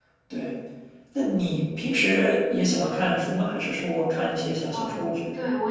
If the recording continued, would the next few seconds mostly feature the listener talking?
Yes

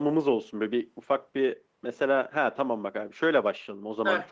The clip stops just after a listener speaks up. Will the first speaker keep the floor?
Yes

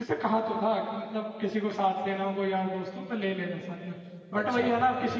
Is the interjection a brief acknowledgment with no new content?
Yes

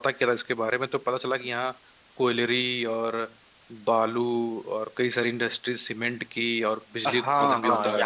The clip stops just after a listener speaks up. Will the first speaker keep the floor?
No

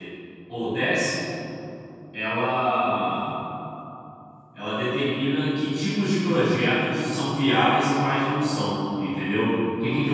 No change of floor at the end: No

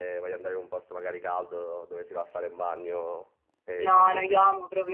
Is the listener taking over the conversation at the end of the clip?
Yes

